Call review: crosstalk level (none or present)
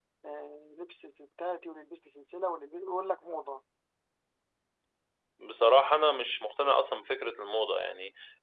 none